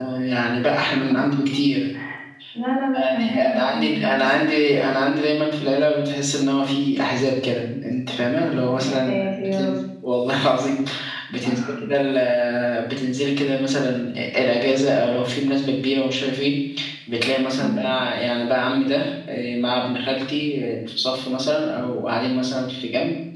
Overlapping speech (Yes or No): Yes